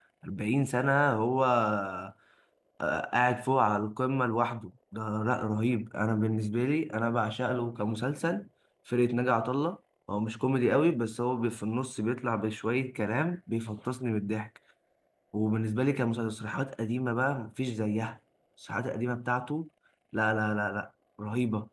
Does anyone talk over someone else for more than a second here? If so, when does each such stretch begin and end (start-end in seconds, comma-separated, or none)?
none